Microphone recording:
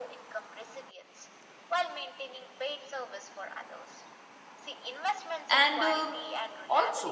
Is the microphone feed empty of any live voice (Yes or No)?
No